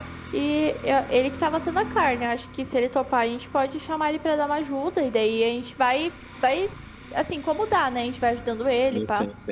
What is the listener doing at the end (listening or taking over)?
taking over